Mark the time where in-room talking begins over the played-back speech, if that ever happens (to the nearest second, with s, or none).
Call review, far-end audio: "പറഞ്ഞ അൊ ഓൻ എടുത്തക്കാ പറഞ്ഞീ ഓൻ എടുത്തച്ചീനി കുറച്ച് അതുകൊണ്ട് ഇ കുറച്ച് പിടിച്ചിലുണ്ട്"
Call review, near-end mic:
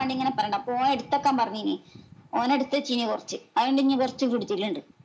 none